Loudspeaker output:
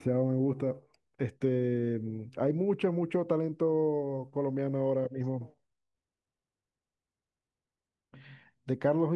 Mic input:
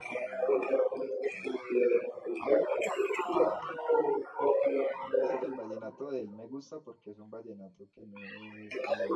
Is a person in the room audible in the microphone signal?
Yes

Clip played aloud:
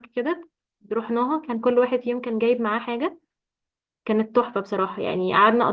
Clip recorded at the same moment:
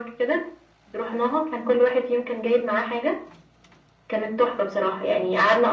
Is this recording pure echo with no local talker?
Yes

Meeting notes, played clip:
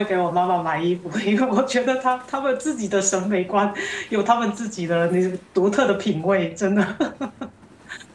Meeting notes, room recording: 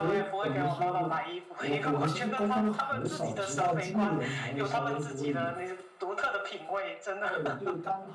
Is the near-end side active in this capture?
Yes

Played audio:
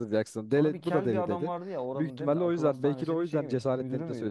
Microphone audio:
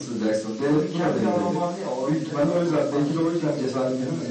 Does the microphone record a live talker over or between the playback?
No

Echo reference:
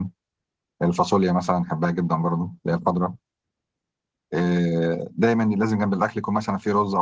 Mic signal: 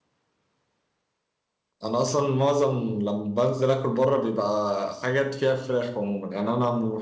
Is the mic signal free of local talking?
No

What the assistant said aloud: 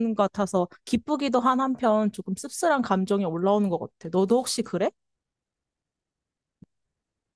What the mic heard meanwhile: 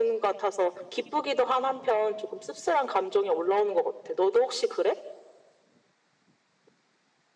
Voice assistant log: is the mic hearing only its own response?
Yes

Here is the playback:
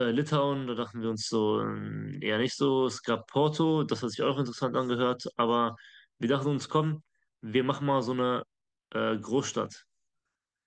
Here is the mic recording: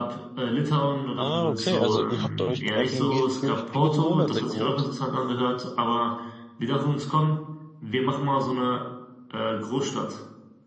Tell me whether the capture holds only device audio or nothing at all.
No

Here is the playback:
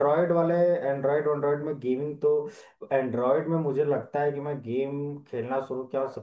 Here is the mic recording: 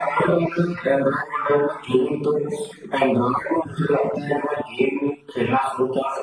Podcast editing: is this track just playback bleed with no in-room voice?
Yes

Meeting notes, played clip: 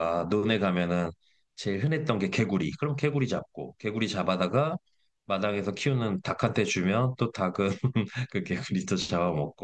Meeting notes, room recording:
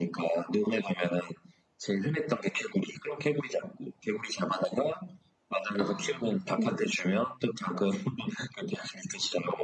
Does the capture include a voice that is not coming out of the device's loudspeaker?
Yes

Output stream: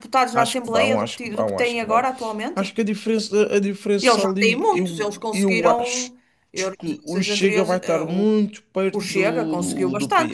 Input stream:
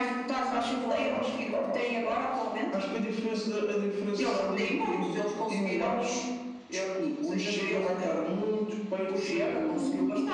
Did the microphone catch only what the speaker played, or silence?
Yes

